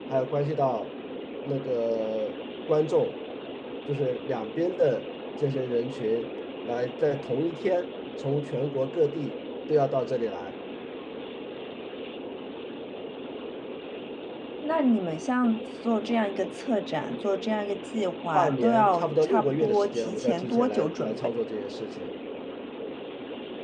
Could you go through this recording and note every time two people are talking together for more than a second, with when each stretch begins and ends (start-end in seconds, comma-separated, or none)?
18.3-21.2